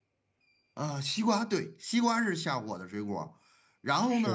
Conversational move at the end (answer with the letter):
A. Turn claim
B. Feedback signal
B